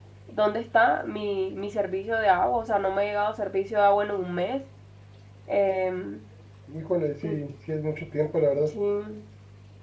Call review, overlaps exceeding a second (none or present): none